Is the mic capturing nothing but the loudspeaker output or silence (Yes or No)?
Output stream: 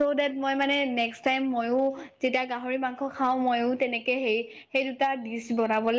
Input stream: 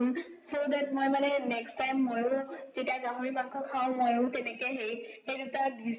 Yes